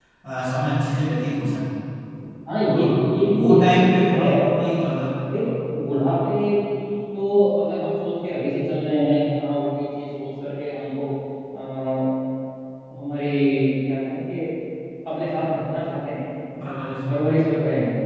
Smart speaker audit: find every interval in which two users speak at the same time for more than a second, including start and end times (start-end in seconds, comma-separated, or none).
2.7-4.4